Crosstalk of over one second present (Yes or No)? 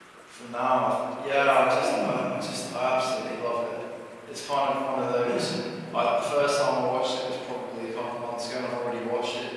Yes